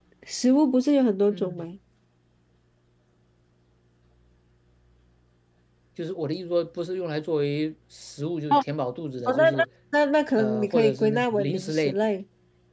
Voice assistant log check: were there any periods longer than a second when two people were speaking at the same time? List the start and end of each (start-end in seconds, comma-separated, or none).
10.4-12.0